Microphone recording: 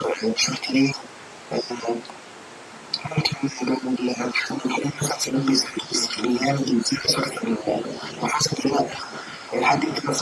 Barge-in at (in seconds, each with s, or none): none